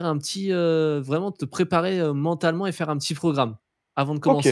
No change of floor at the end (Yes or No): No